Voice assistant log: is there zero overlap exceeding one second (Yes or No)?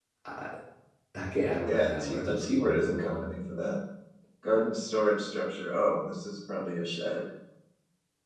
No